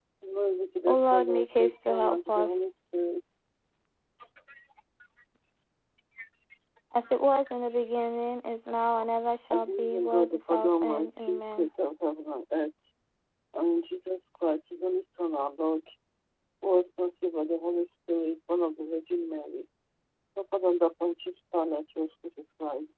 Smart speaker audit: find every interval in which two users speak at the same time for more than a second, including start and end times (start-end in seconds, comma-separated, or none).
0.9-2.6, 9.5-11.7